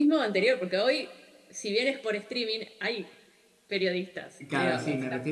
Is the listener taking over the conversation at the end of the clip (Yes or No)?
Yes